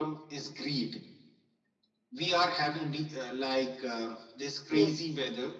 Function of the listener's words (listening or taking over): listening